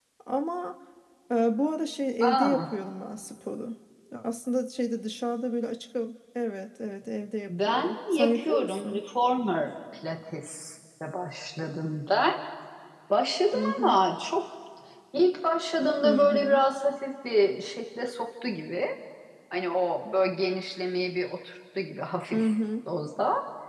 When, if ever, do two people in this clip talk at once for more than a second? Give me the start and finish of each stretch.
7.5-9.0

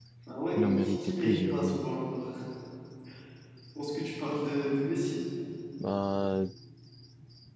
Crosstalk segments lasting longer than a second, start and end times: 0.5-1.8

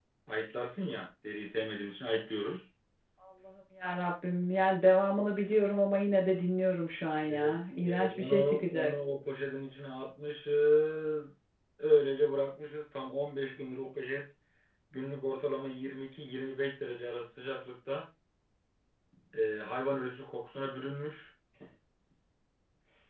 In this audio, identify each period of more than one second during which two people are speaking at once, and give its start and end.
7.3-8.9

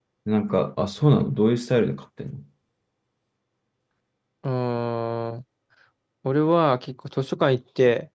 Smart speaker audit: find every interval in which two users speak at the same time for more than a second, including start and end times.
none

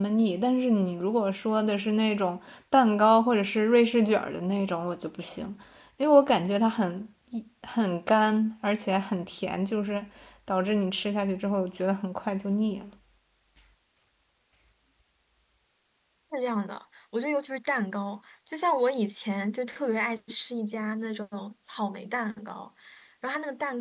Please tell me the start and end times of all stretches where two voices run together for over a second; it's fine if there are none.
none

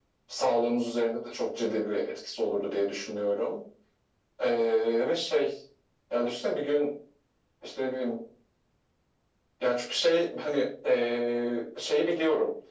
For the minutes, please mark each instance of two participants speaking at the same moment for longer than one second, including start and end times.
none

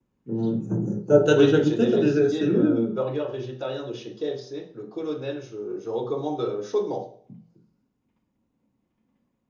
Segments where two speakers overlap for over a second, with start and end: 1.3-2.9

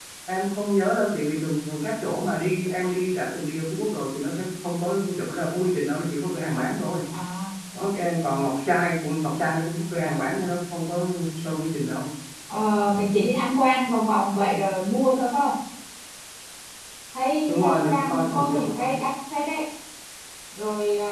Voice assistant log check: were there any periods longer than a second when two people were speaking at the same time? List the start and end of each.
17.4-18.9

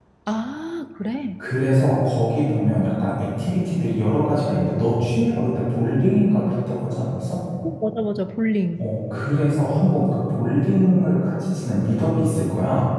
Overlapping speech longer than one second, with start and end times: none

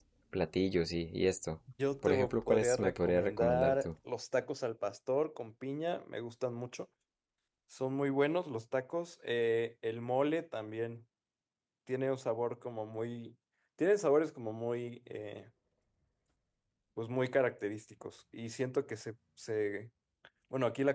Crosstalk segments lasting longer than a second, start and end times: 2.0-3.9

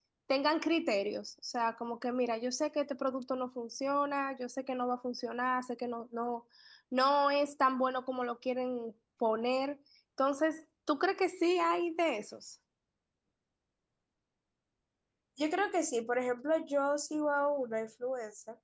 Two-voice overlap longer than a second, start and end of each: none

